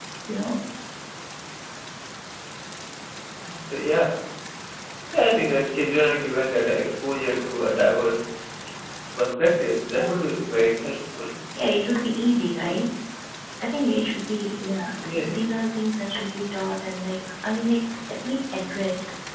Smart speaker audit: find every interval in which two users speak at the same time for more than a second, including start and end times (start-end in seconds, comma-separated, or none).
none